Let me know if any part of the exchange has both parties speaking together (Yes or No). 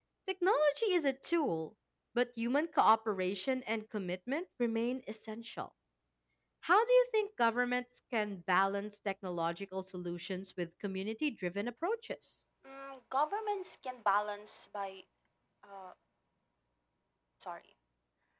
No